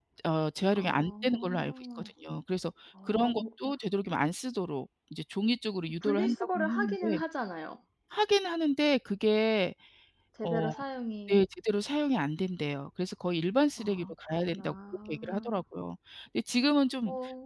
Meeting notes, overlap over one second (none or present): present